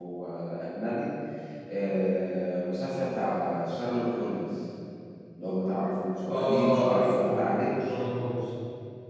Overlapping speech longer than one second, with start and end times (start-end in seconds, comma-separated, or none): 6.3-7.7